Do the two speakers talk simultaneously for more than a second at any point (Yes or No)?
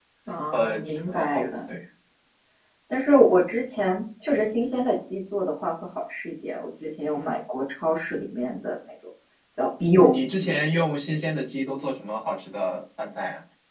Yes